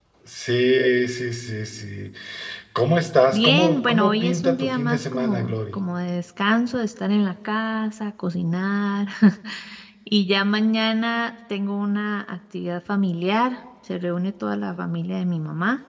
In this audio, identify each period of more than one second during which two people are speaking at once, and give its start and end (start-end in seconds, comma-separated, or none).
3.3-5.8